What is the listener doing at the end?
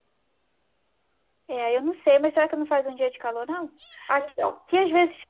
listening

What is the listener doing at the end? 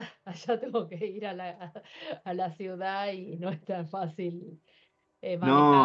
listening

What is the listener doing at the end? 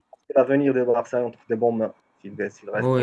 taking over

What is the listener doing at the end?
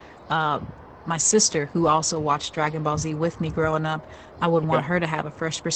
listening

